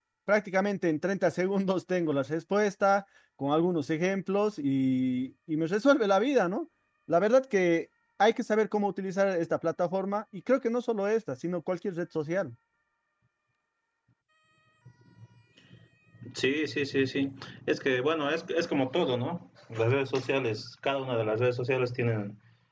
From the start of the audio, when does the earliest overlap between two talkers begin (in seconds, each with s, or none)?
none